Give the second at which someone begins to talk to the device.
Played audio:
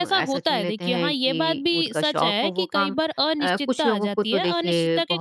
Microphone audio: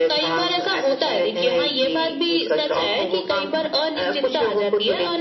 none

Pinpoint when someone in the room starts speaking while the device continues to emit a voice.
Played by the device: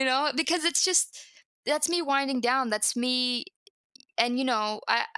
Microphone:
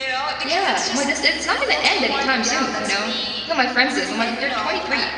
0 s

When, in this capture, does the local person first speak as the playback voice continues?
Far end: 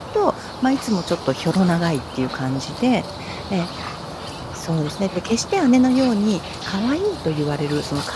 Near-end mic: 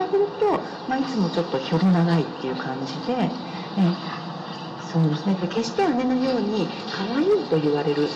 none

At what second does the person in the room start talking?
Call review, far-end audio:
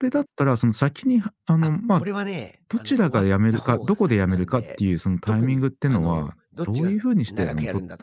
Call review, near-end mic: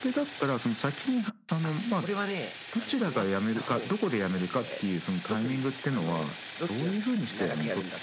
none

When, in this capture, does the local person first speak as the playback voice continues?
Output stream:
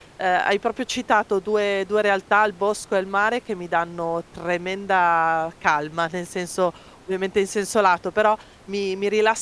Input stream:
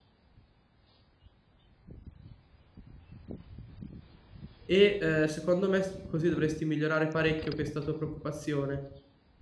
5 s

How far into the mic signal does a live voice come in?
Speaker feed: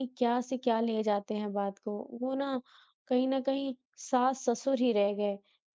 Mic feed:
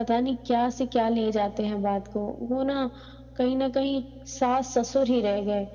none

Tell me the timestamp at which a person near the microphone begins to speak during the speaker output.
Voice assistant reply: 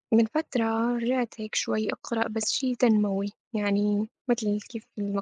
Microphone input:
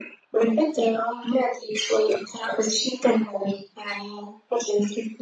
none

